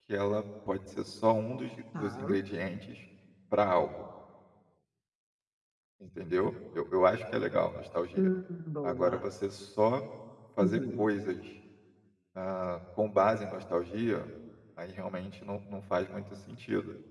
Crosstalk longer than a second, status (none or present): none